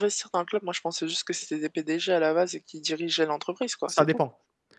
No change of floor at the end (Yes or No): No